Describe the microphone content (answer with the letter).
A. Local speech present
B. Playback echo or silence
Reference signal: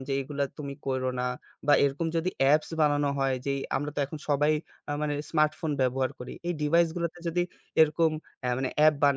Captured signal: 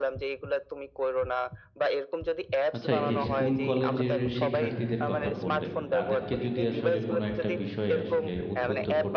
A